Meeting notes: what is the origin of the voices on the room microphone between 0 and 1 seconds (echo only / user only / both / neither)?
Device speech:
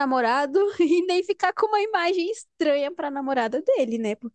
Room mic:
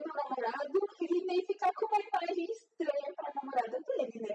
echo only